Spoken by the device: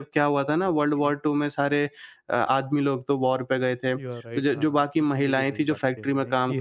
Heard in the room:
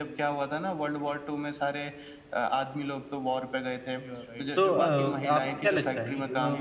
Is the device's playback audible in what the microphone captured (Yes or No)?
Yes